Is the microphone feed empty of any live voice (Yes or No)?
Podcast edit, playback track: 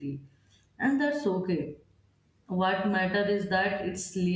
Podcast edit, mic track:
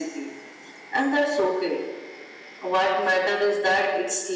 Yes